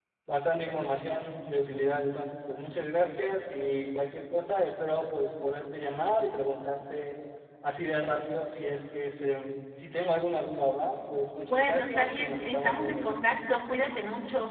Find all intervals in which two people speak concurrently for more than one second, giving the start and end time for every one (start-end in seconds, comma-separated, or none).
11.4-13.1